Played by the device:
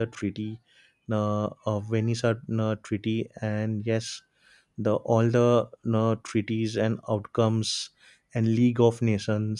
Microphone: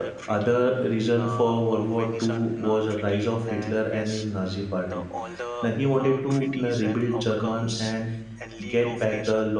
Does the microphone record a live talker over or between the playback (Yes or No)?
Yes